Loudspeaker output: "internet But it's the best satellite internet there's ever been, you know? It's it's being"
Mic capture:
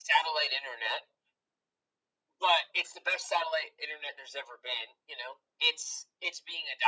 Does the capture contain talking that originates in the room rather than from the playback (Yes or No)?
No